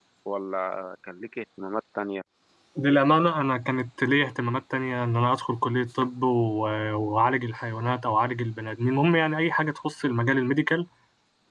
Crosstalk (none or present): none